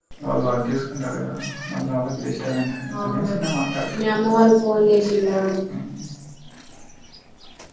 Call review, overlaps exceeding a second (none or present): none